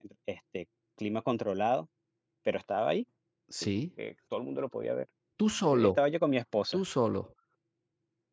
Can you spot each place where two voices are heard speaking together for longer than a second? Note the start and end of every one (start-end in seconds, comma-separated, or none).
none